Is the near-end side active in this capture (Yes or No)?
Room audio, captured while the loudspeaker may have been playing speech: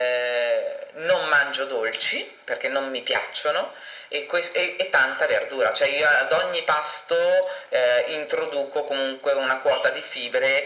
No